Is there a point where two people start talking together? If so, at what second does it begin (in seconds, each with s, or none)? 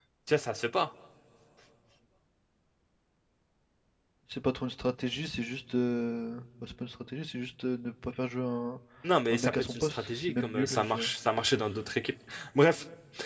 9.3 s